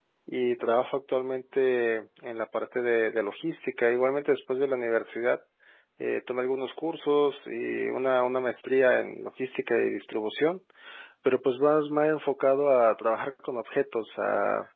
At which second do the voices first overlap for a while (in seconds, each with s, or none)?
none